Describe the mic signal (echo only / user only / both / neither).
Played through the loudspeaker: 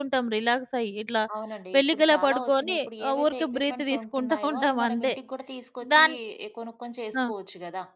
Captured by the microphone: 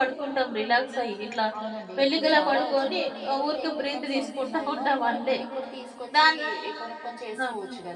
echo only